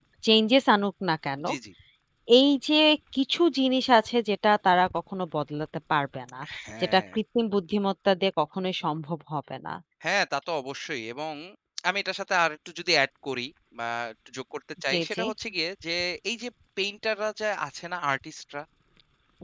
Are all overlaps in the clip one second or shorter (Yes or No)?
Yes